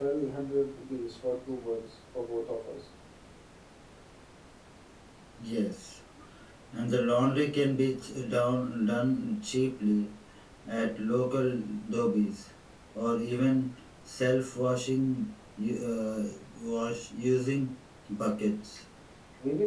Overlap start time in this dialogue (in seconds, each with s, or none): none